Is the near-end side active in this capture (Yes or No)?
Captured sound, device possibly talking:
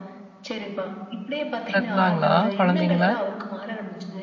Yes